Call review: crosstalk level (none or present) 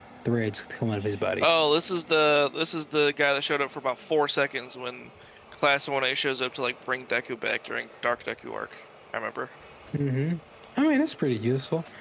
none